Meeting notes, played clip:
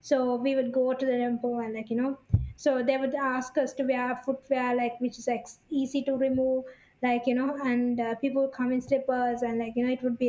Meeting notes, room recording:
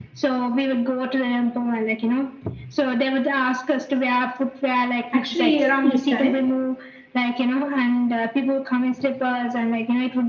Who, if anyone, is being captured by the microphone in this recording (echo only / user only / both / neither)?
both